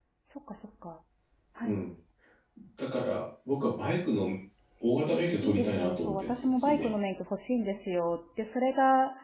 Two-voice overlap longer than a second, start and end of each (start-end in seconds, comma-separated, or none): 5.4-6.9